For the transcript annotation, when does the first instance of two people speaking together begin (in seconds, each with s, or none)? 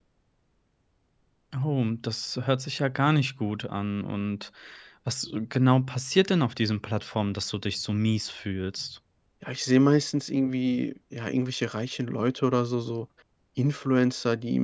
none